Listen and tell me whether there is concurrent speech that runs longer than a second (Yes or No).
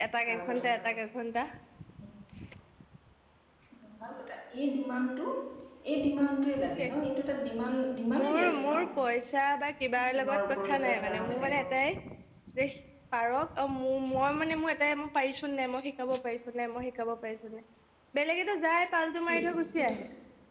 Yes